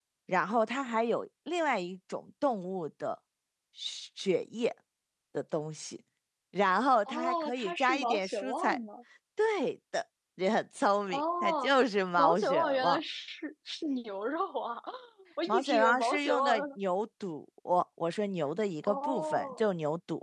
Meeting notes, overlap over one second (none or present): present